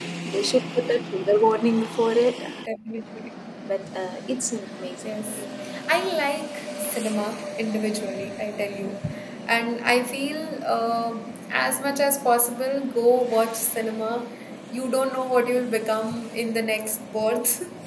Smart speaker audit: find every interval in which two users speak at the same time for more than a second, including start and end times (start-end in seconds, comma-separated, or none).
none